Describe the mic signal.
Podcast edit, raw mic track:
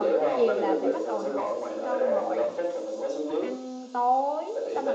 both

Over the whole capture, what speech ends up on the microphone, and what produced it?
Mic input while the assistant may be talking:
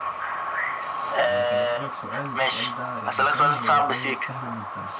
both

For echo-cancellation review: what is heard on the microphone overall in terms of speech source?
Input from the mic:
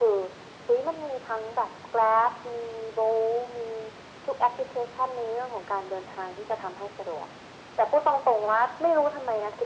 echo only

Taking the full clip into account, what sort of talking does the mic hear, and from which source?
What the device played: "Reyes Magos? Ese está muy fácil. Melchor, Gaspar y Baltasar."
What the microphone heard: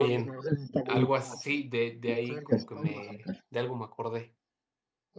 both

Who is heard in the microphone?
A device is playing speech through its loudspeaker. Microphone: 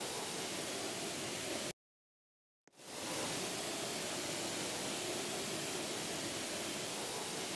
neither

